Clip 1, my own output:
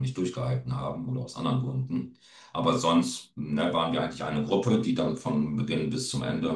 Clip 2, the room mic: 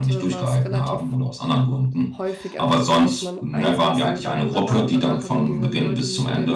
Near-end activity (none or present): present